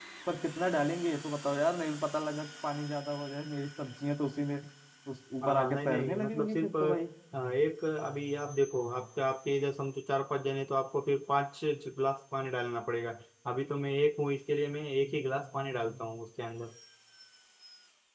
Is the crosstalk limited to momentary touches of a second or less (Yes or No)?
No